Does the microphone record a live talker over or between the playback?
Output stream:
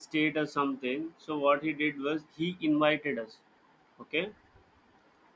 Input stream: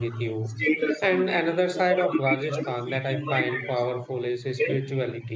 Yes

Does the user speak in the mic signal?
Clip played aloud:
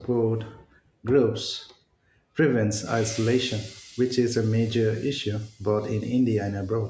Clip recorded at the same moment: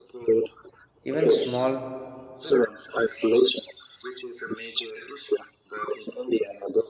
Yes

